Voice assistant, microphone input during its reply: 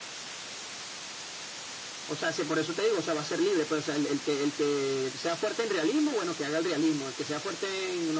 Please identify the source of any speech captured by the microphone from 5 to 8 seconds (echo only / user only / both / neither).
echo only